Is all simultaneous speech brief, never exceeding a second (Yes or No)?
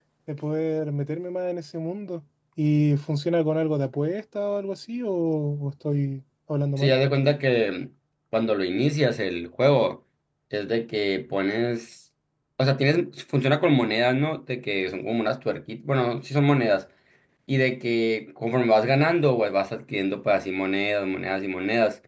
Yes